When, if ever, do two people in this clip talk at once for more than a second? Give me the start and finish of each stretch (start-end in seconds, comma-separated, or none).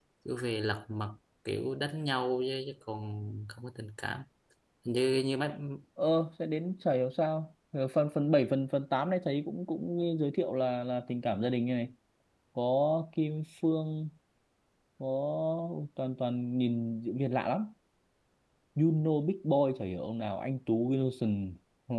none